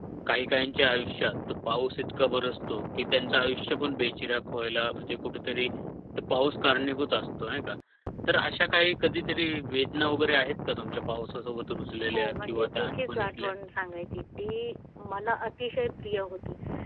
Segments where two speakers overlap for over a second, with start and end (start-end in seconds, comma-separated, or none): 12.1-13.5